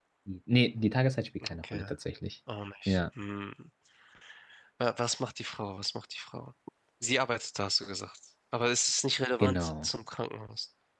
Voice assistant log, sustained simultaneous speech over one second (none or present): none